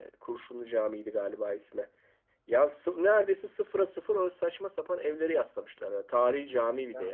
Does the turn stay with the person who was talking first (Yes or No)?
No